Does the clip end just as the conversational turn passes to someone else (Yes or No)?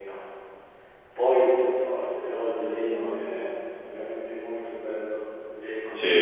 Yes